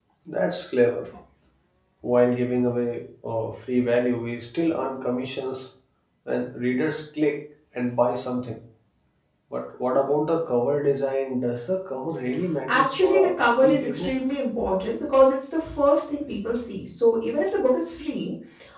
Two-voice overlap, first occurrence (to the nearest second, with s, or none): 13 s